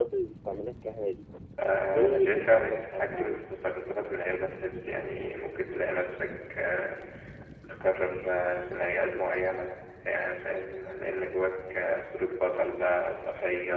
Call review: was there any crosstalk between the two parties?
Yes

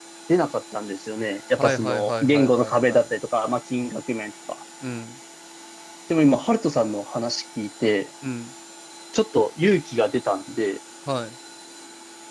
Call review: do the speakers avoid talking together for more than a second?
No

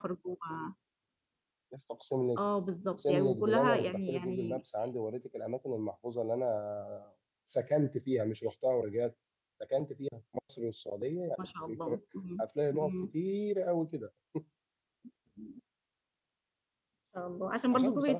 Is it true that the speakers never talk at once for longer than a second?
No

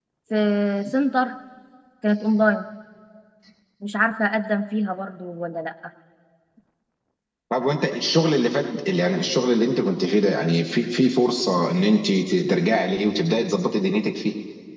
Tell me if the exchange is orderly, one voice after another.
Yes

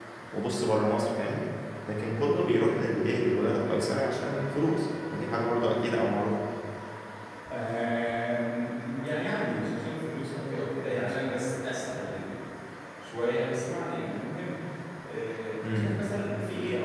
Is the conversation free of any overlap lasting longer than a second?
Yes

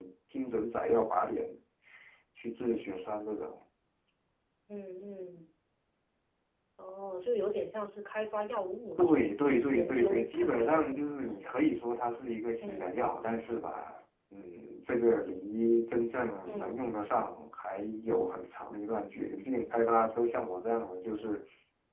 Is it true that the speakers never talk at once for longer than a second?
No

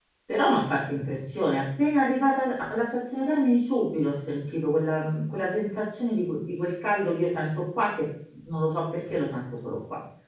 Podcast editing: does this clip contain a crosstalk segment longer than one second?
No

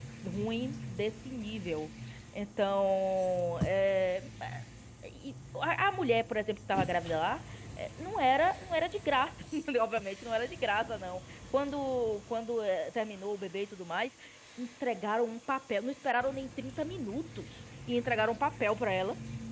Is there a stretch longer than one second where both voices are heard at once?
No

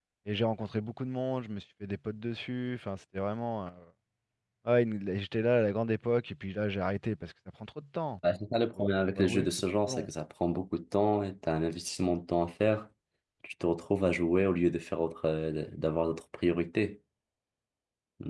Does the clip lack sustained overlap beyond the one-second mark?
No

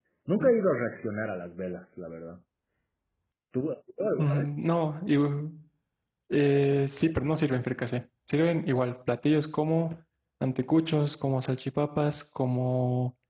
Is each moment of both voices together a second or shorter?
Yes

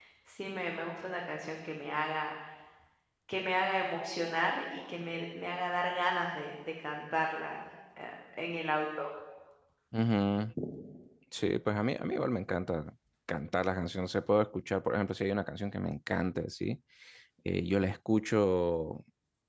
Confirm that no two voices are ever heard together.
Yes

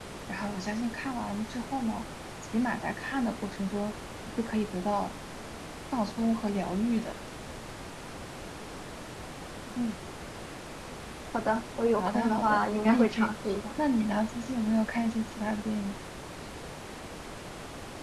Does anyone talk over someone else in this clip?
Yes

